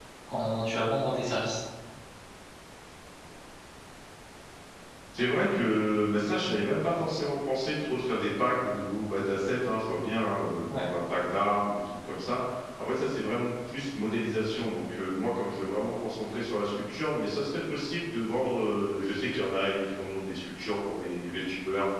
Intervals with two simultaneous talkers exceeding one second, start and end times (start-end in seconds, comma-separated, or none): none